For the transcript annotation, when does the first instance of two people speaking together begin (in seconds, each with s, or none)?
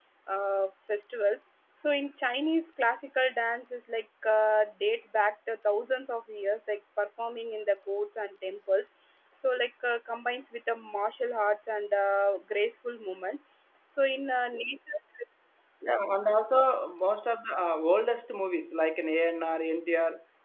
none